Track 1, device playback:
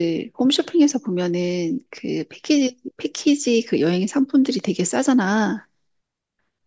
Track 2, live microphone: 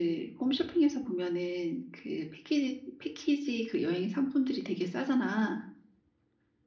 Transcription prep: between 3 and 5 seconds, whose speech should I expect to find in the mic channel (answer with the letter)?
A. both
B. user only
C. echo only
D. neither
C